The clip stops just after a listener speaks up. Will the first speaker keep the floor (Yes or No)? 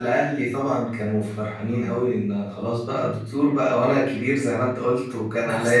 Yes